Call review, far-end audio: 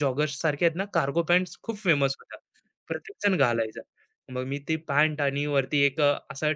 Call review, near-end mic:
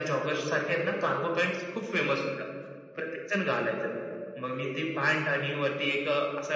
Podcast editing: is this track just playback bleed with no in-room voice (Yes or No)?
Yes